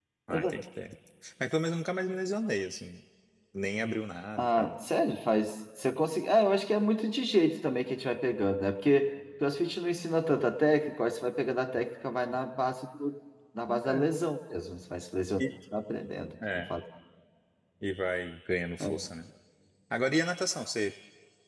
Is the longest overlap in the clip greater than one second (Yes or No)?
No